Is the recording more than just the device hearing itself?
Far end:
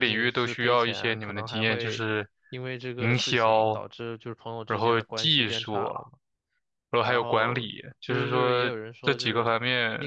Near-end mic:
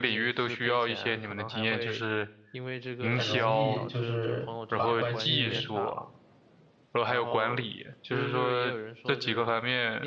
Yes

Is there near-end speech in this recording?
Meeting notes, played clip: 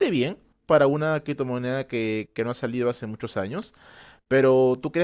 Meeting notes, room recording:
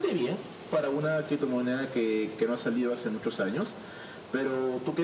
No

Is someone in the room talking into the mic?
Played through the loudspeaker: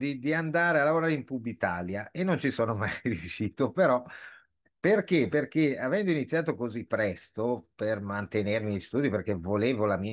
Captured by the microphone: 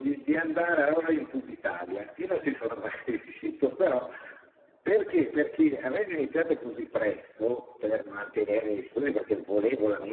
No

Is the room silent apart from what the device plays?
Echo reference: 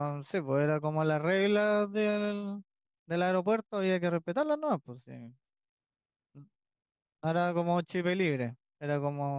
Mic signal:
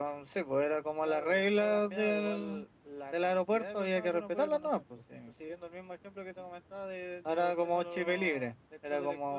No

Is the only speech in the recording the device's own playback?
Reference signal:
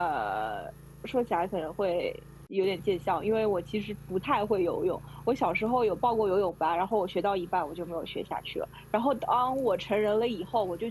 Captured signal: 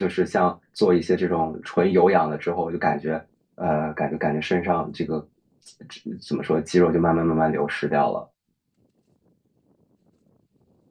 No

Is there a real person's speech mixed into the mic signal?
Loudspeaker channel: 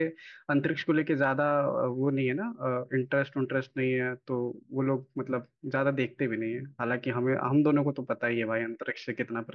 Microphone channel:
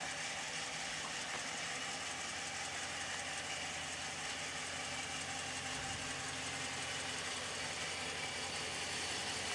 No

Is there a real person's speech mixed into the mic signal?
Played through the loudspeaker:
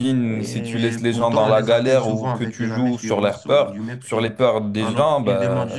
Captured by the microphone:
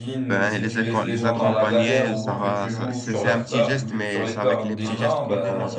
Yes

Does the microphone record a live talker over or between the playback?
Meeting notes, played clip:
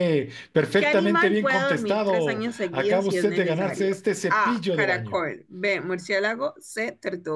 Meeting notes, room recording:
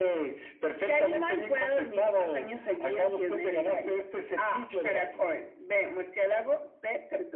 No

